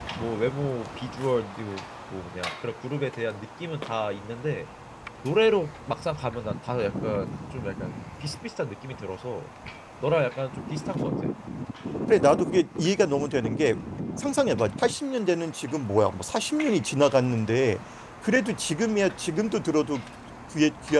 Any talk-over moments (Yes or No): No